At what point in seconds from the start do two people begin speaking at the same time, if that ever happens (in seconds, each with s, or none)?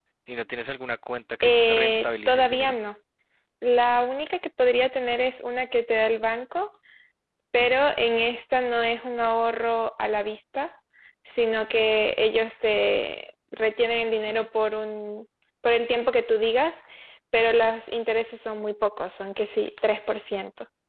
1.4 s